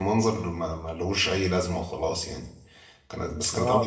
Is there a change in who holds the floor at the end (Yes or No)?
Yes